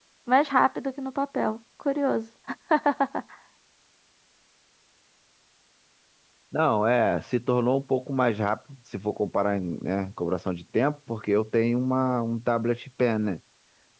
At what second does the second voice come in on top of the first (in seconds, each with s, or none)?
none